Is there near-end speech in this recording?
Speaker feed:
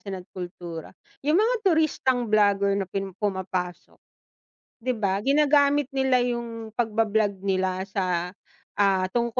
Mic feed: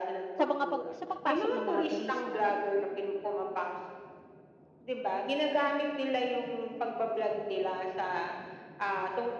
Yes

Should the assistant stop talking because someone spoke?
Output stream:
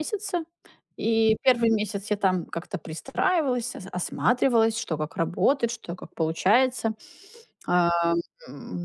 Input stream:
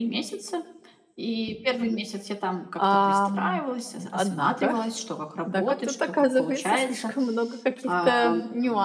Yes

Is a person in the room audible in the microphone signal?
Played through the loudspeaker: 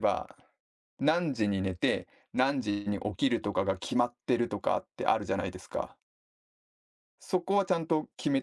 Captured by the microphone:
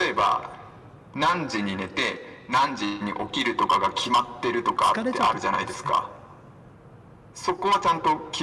Yes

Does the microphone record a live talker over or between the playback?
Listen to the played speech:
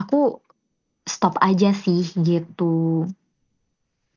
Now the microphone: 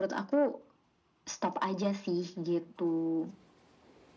No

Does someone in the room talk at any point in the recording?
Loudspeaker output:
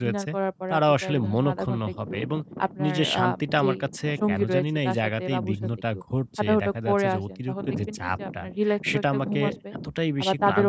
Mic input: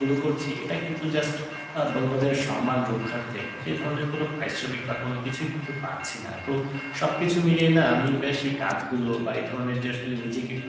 Yes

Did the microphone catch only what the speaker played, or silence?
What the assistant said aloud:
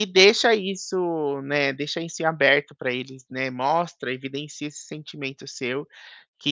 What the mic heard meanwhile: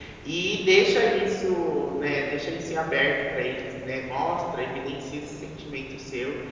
Yes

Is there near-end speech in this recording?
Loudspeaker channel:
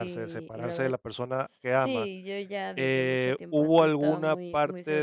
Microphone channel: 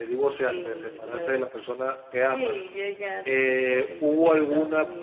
No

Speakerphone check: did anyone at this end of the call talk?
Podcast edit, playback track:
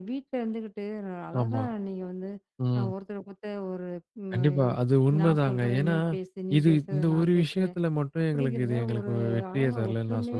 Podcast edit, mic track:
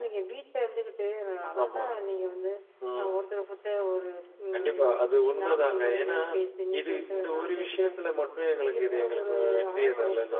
No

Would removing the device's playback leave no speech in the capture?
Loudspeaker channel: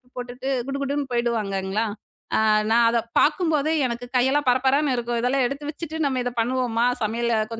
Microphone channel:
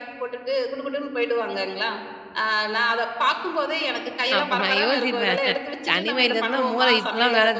No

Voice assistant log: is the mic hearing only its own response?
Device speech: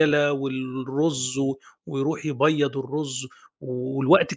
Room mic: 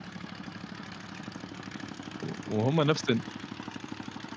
No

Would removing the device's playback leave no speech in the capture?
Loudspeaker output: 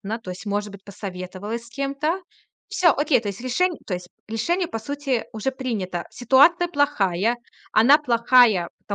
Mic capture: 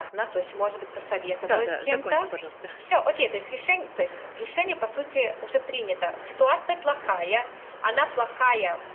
No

